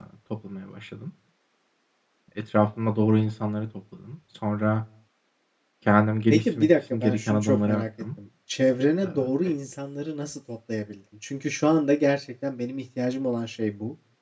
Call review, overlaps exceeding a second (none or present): present